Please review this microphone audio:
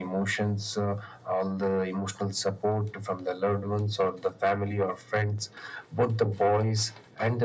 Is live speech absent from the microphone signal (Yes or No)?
Yes